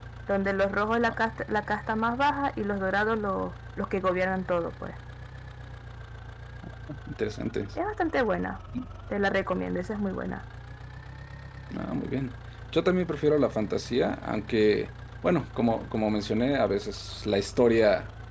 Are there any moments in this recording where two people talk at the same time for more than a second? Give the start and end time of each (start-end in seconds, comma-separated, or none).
none